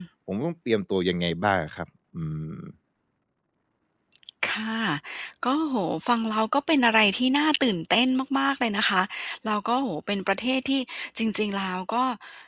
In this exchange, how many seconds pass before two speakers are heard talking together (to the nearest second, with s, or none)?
none